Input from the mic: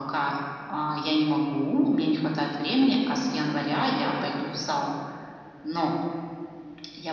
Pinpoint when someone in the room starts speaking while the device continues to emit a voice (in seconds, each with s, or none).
none